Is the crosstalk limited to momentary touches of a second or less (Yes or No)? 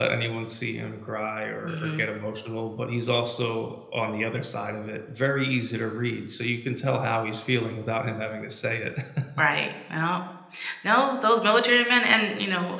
Yes